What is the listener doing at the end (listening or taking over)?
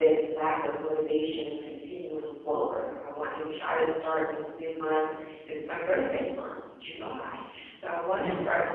listening